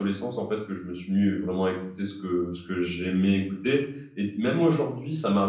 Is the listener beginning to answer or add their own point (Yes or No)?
No